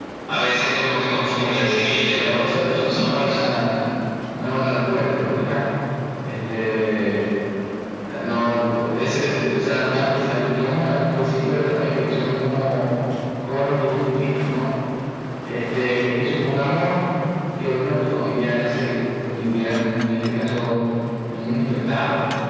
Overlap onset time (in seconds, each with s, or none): 1.4 s